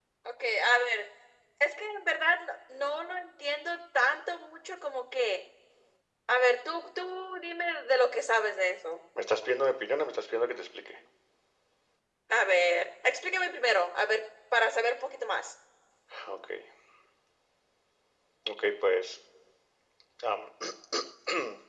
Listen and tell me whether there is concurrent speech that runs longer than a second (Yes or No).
No